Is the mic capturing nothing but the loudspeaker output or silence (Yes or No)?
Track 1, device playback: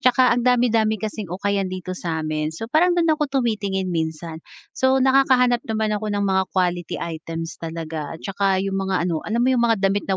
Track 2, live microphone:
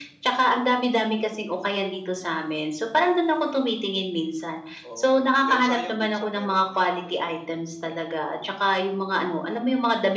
No